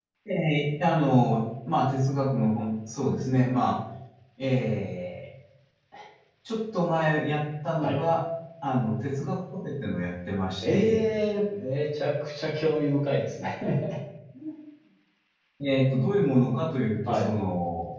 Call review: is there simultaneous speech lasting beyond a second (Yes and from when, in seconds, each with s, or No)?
No